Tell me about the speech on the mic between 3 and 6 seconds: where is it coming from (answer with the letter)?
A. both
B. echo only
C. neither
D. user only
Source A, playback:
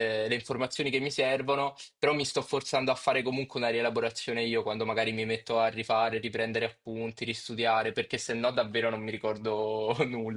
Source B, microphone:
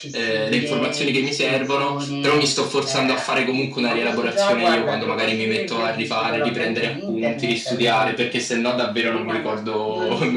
A